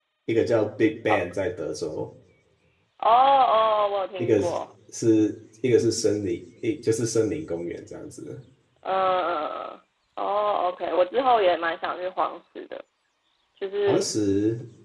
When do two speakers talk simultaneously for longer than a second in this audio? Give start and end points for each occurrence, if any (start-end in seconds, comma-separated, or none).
none